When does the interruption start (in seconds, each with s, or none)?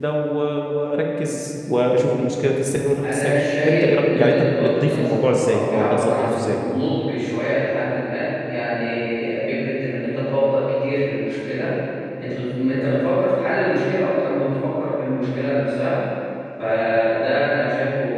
3.0 s